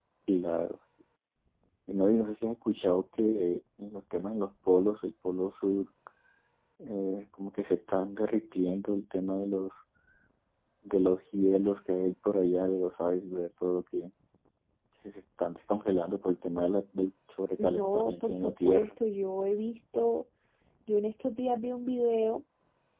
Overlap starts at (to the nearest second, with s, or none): 18 s